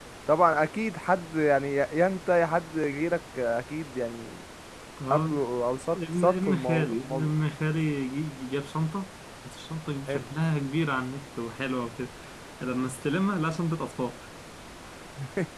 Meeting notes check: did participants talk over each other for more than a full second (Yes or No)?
Yes